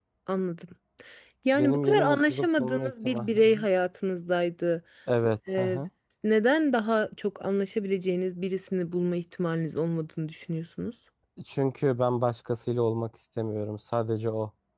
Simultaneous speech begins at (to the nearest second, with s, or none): 2 s